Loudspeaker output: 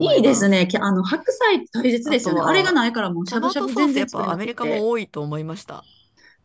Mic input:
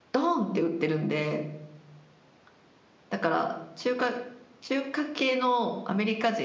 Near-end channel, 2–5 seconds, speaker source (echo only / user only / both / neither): user only